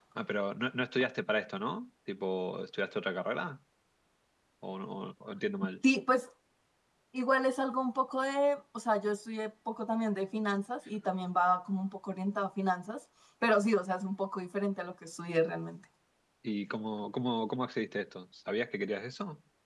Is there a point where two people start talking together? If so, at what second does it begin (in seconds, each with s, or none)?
none